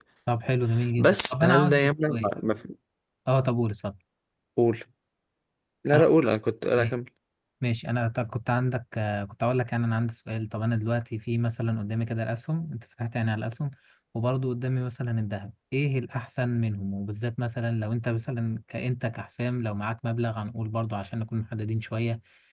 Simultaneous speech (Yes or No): Yes